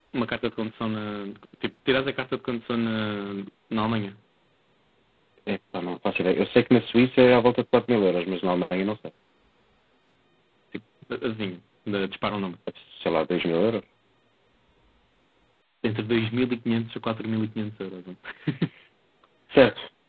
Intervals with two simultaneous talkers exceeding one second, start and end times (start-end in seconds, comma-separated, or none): none